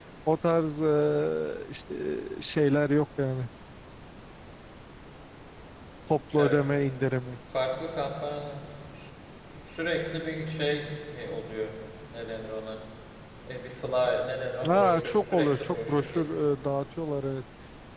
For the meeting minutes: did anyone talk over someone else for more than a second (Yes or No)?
Yes